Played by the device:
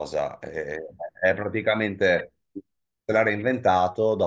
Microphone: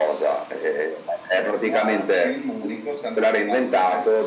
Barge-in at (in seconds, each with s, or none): 1.6 s